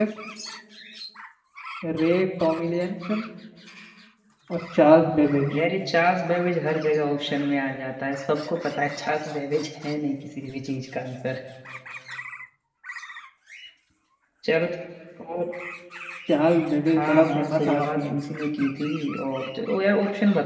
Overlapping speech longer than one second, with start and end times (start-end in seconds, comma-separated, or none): 16.9-18.2